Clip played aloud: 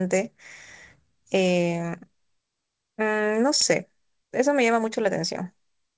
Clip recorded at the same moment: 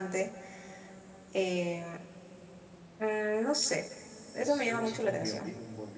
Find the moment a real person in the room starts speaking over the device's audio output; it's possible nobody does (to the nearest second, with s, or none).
4 s